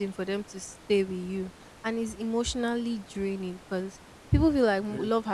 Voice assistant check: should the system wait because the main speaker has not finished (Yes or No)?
Yes